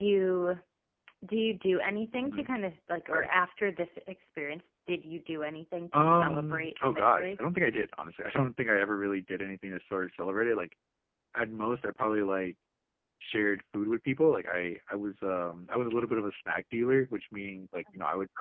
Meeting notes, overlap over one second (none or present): present